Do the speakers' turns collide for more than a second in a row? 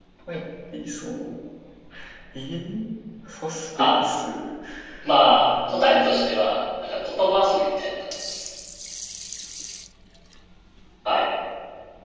Yes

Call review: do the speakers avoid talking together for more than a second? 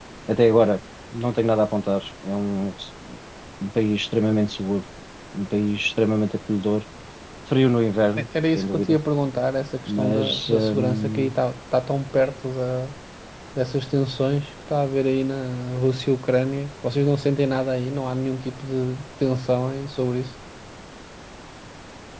No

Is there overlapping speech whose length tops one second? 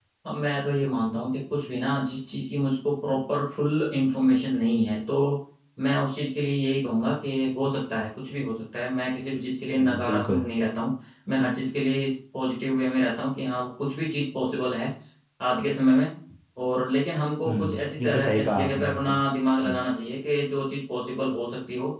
Yes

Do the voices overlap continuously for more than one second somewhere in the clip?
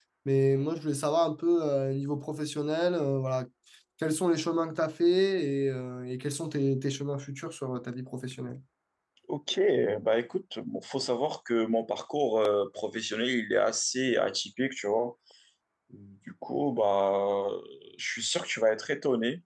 No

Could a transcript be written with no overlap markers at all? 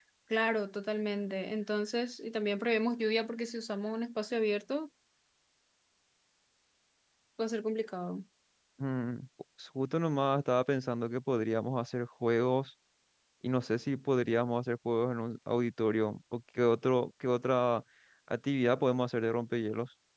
Yes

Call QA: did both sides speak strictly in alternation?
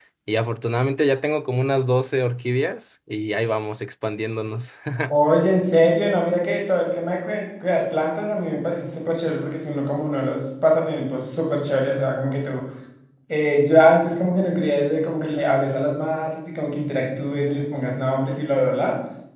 Yes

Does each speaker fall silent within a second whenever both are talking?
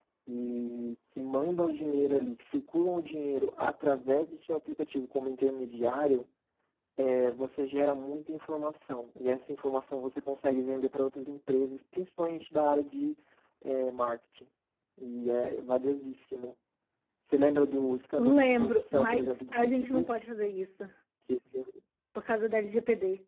No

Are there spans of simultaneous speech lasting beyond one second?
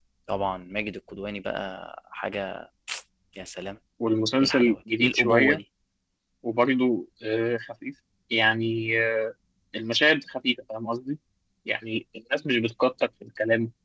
Yes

